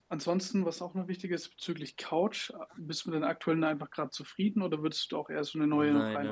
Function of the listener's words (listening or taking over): taking over